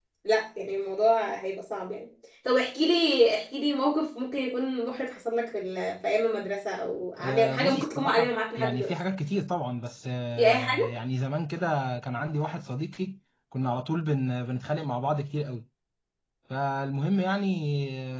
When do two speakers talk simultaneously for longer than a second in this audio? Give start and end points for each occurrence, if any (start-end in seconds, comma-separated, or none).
7.2-8.9